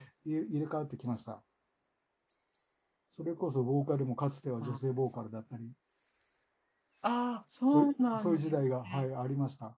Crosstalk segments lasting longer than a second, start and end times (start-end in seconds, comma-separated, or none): 7.7-9.0